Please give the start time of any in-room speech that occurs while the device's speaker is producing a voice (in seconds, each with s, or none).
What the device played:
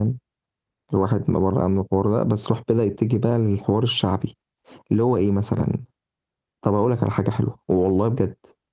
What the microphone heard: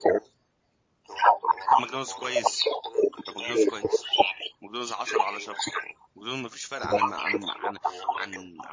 1.7 s